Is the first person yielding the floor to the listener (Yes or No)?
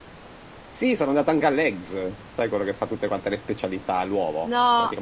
No